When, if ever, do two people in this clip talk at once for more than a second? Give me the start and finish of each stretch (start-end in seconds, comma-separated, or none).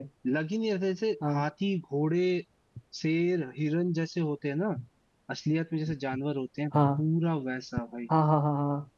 none